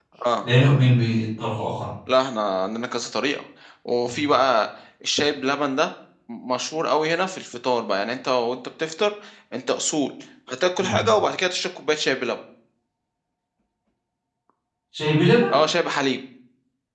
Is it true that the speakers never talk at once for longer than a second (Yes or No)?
Yes